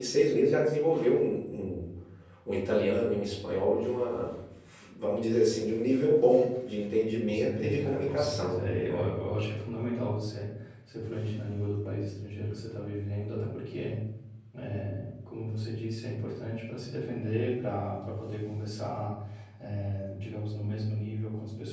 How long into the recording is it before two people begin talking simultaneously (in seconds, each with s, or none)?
7.2 s